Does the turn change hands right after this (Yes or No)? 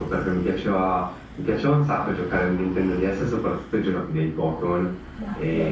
No